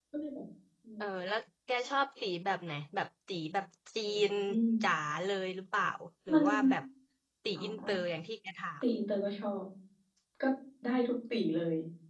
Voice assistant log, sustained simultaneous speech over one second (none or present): none